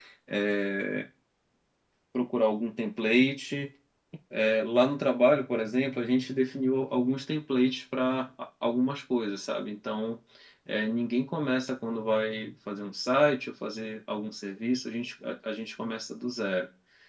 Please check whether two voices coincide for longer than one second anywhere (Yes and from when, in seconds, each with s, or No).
No